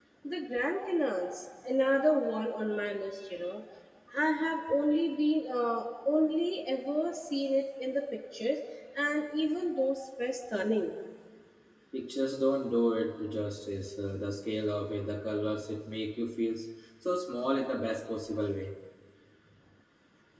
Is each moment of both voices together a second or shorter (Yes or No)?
Yes